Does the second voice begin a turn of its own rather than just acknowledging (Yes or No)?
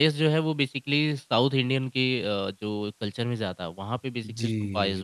Yes